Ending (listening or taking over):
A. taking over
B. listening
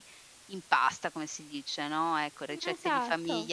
B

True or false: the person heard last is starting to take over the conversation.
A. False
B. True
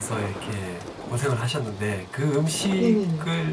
A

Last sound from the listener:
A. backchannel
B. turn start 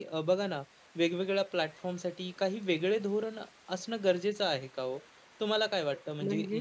A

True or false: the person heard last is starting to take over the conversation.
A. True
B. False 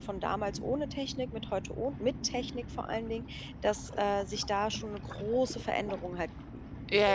A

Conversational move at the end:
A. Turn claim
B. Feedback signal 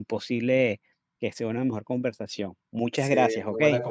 A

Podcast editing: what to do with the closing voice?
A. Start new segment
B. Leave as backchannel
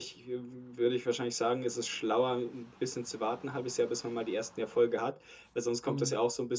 B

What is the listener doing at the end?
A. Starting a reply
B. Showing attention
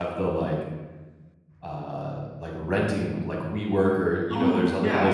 B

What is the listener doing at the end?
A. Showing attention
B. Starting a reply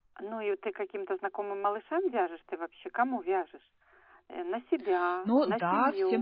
B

